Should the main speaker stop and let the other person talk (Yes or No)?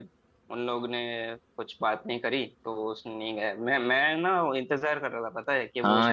Yes